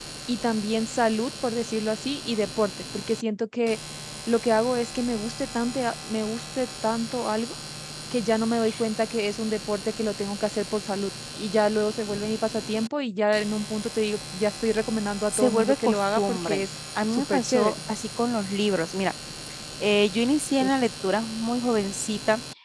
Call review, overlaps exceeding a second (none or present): present